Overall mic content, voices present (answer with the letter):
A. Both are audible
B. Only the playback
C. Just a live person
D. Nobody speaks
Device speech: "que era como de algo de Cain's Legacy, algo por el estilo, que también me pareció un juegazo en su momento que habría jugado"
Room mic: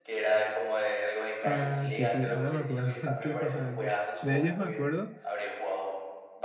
A